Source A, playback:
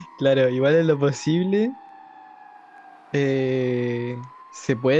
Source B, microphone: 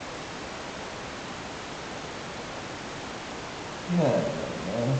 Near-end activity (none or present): present